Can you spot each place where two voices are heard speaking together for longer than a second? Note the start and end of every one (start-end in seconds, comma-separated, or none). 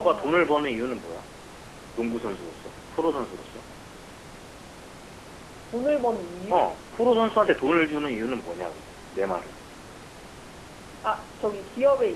none